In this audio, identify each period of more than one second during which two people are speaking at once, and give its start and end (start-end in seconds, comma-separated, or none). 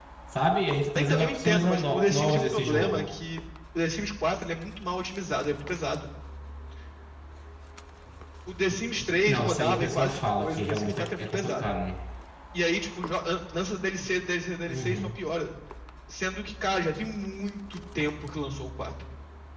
1.0-3.1, 9.2-11.7